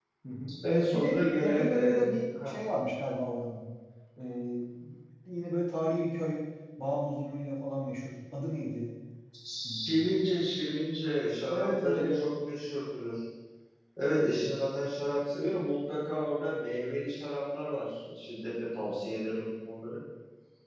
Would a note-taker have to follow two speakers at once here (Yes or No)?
Yes